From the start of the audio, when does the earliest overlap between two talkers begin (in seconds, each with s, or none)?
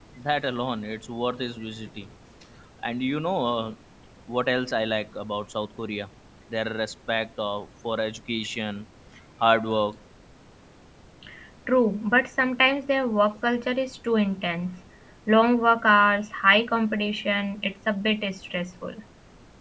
none